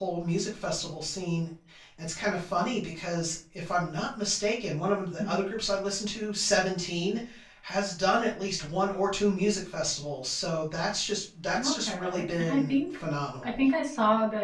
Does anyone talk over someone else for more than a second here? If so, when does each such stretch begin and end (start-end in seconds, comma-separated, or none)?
11.6-13.0